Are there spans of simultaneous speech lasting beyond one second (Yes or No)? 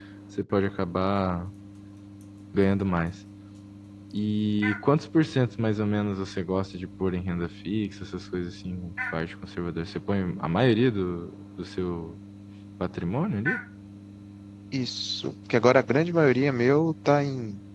No